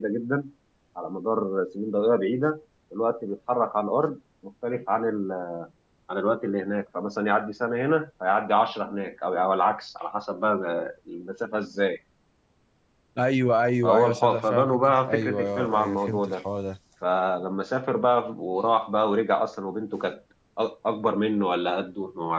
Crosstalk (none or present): present